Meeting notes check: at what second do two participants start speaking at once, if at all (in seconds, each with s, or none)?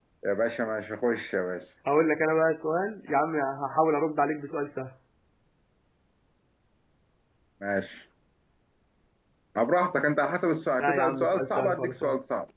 10.8 s